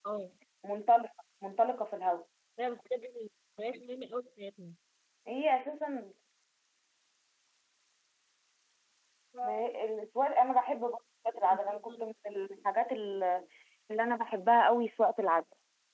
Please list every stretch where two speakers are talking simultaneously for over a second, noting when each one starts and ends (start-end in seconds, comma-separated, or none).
none